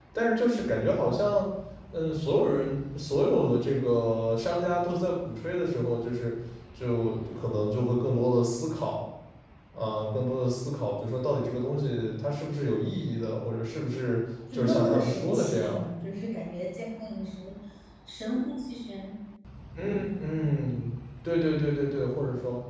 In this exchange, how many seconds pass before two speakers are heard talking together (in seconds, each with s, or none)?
14.5 s